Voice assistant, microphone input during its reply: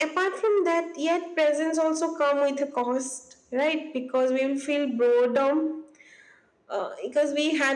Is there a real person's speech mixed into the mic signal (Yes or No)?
No